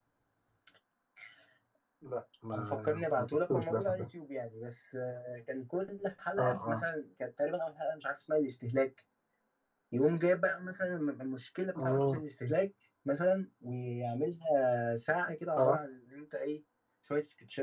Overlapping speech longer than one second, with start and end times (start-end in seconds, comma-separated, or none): 2.5-4.0